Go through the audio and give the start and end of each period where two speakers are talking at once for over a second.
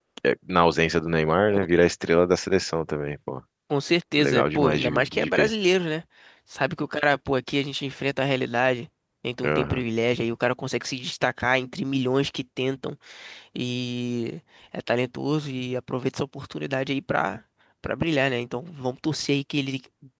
4.2-5.5

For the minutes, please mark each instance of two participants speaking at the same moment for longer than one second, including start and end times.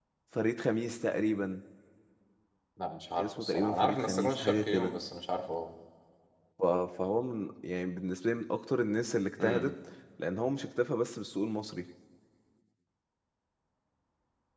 3.2-4.9

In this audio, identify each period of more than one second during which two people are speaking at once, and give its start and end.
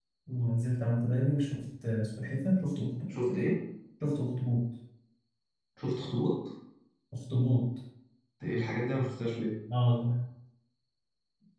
none

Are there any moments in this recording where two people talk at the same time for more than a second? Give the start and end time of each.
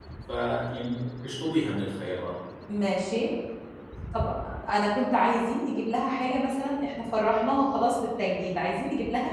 none

